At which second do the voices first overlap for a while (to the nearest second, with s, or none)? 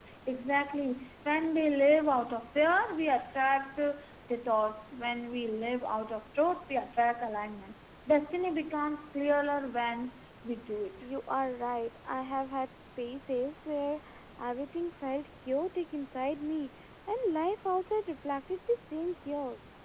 none